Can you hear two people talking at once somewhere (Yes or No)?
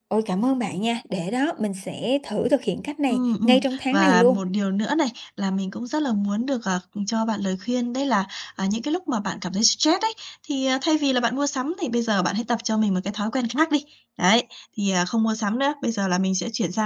Yes